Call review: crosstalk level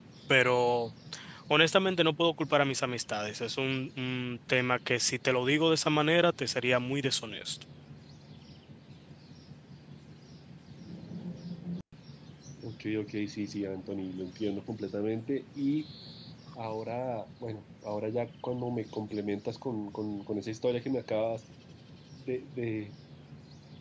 none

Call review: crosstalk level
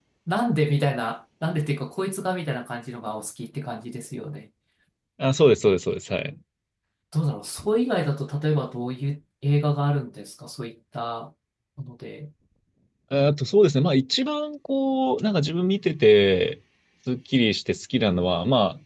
none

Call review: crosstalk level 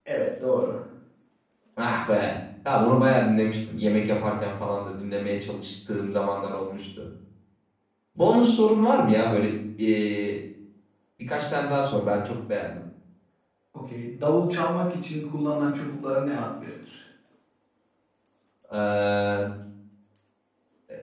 none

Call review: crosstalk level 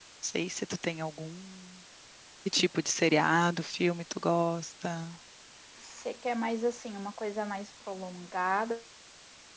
none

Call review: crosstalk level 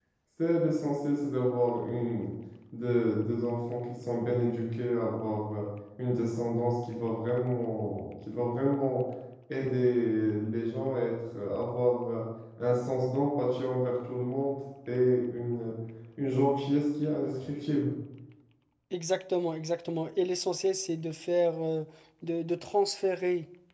none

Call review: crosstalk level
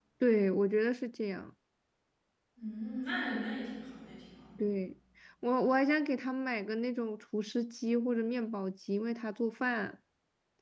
none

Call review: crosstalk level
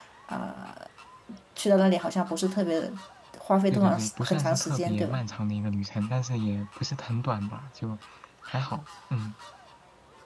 present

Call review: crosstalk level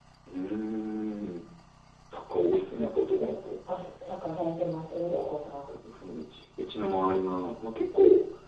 none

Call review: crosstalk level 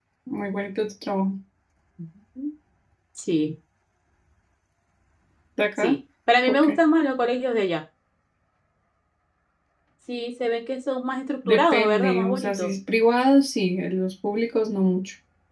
present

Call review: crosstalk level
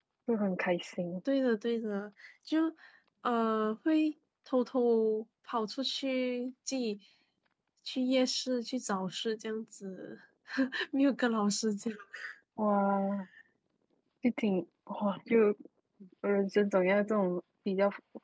none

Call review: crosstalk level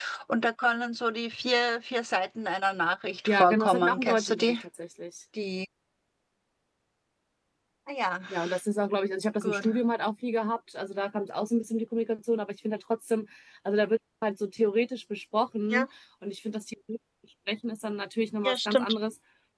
present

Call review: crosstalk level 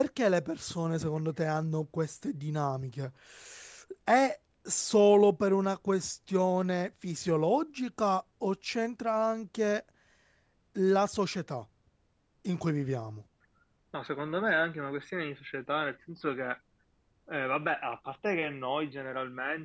none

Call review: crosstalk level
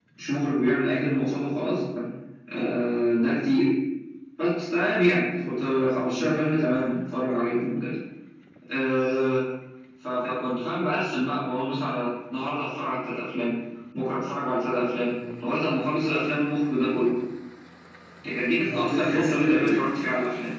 present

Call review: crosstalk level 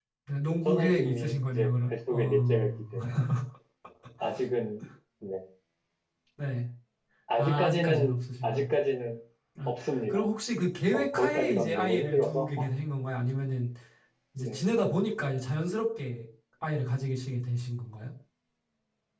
present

